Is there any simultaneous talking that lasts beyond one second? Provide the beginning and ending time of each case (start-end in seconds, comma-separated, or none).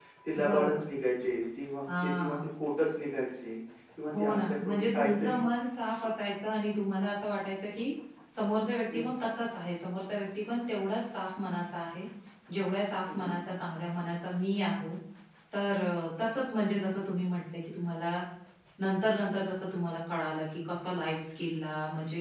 4.1-5.4